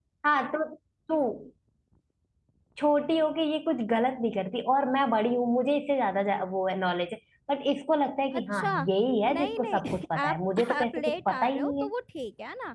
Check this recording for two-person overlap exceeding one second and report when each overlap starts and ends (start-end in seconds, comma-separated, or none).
9.3-11.9